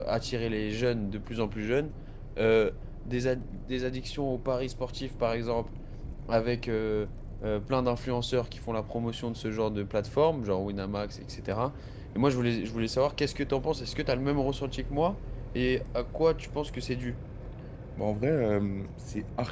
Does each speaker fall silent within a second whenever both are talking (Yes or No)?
Yes